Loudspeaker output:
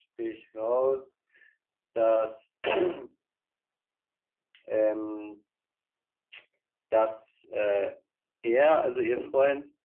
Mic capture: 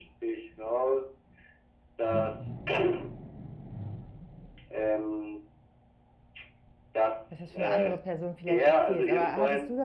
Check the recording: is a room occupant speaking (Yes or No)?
Yes